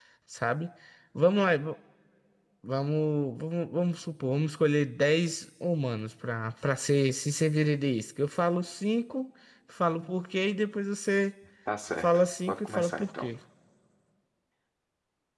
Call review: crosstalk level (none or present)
present